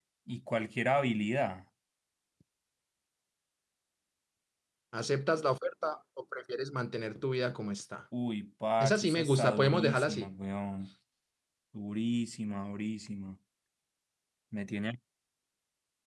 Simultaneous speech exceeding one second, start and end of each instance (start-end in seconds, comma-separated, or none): 8.8-10.3